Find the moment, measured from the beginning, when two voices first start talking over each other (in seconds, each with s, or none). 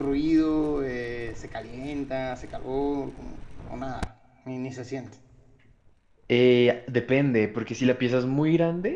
none